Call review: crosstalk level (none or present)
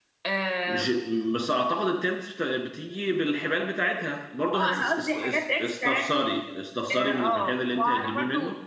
present